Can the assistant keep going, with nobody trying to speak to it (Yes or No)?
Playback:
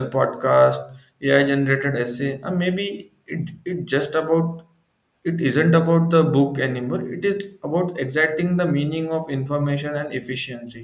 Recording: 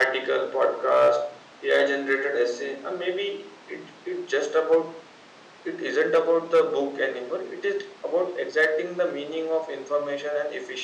Yes